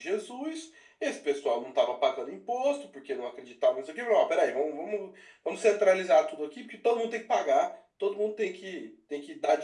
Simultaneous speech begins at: none

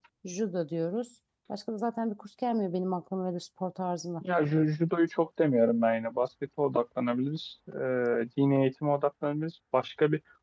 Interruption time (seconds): none

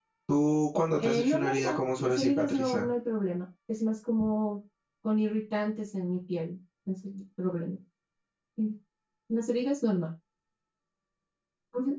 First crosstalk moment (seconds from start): 1 s

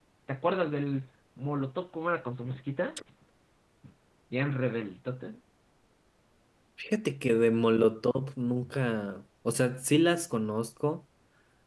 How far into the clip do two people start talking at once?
none

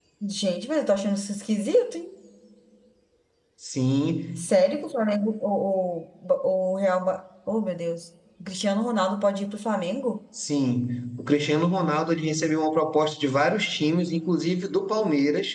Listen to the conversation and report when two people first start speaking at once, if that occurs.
none

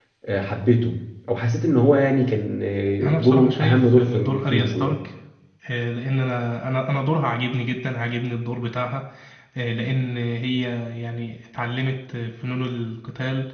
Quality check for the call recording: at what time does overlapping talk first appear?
3 s

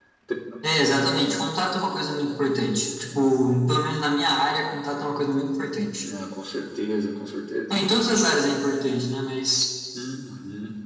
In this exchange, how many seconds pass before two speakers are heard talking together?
none

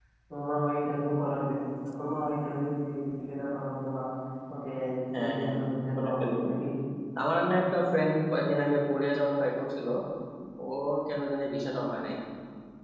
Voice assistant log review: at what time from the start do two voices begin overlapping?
5 s

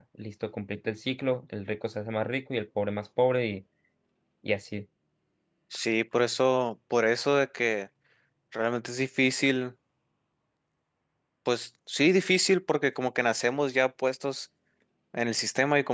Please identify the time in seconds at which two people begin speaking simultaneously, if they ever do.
none

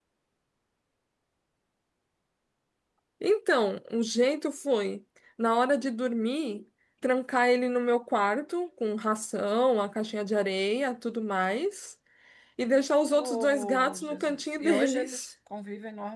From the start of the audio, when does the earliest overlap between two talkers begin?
13 s

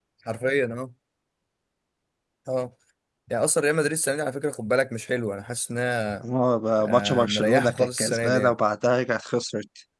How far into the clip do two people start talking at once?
7 s

